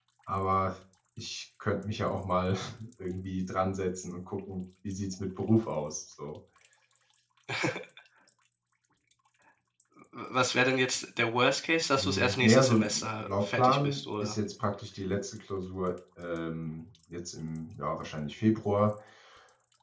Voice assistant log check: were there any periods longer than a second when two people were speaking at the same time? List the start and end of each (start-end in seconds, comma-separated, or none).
12.0-14.4